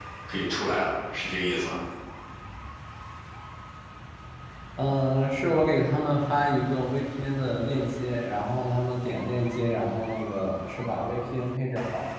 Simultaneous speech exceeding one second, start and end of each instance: none

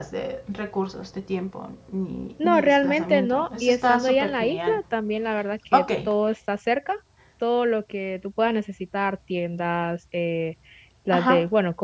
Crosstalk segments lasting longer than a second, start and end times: 2.4-4.8

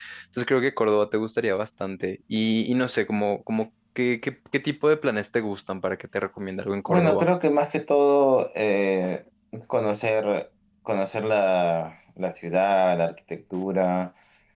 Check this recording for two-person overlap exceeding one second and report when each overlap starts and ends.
none

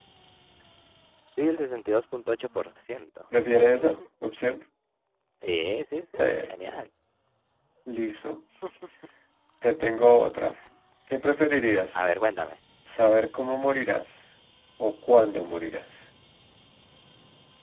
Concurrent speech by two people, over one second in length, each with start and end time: none

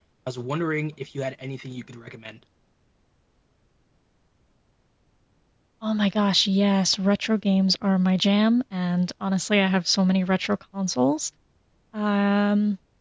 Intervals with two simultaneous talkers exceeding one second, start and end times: none

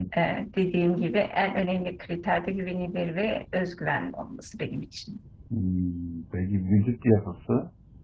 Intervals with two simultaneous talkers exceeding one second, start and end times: none

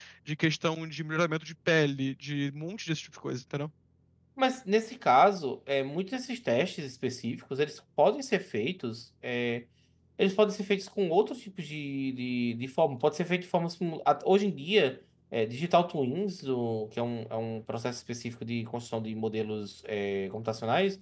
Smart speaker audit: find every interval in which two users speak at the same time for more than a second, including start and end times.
none

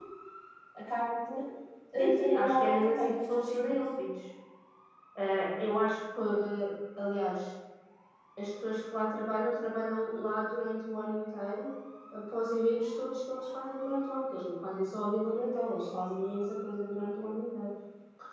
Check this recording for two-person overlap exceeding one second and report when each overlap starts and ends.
2.0-3.8

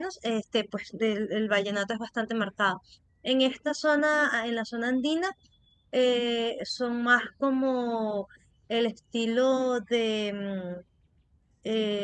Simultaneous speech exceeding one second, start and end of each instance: none

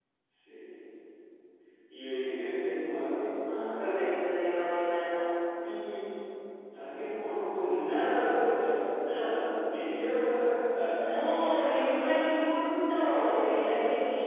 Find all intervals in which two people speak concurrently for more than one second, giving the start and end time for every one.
none

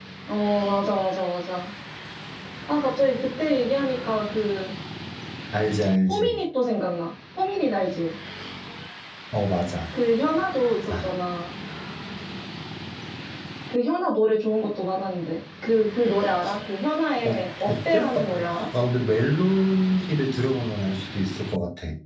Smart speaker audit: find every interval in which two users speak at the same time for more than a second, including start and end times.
17.2-18.6

